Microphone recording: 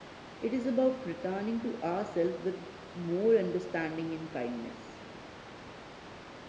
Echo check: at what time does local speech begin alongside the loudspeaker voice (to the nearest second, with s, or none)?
0 s